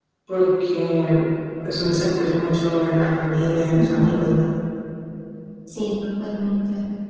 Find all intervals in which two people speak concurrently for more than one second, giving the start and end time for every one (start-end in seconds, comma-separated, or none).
none